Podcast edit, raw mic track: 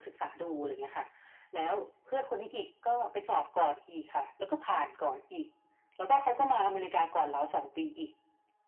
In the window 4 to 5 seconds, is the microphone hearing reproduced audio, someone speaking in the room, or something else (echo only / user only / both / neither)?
echo only